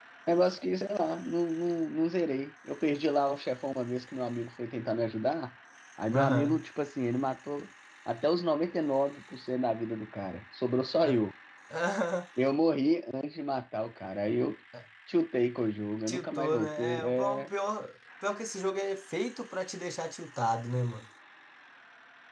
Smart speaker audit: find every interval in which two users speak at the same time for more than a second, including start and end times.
16.1-17.5

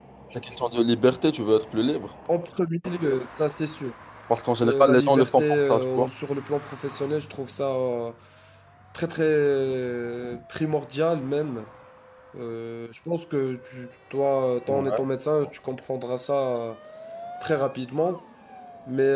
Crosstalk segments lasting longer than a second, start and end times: 4.6-6.1

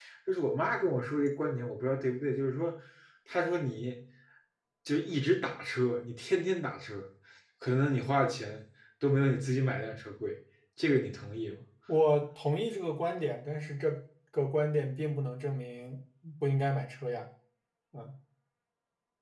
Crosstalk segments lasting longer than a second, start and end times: none

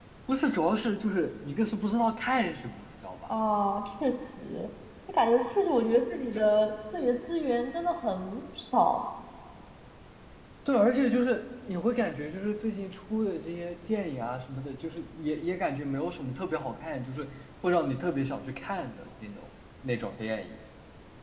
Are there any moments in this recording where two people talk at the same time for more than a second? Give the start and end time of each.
none

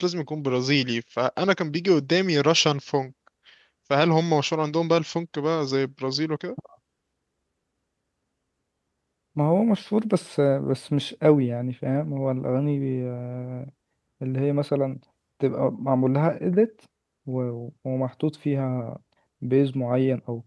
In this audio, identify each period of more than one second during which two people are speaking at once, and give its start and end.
none

